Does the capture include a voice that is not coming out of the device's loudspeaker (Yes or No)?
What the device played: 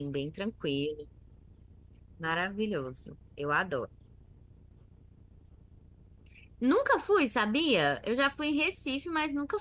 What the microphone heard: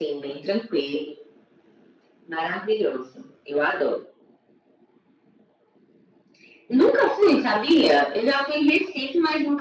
No